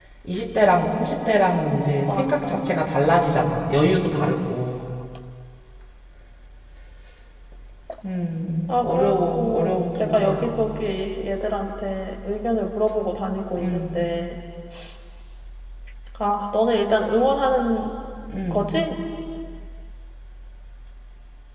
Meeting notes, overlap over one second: present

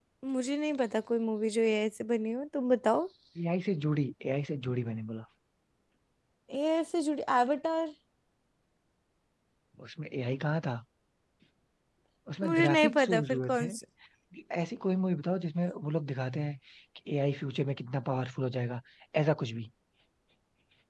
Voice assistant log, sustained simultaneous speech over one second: present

